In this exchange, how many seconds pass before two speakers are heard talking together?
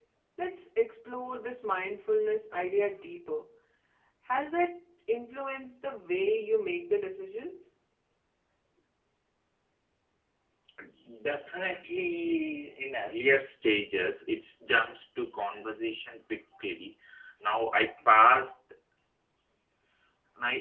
none

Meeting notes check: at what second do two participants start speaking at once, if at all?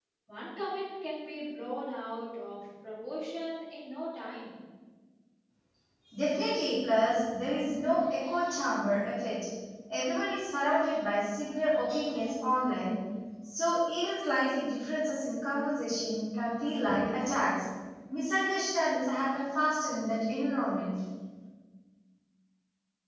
none

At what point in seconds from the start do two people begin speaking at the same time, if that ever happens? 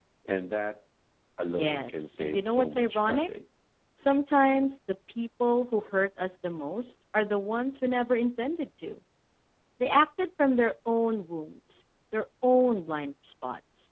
1.6 s

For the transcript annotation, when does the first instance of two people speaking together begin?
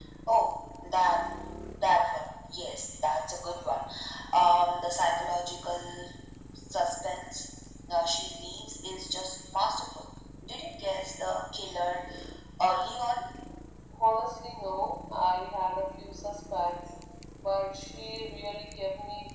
none

